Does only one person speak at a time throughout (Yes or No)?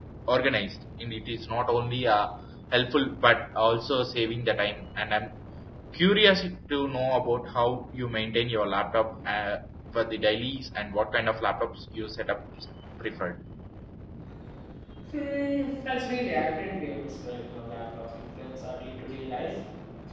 Yes